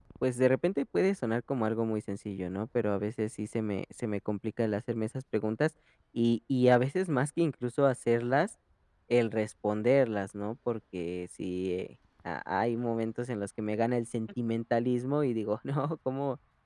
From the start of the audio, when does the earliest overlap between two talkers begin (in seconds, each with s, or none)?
none